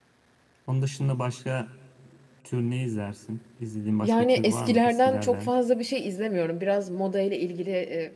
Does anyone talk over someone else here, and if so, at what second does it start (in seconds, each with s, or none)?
4.0 s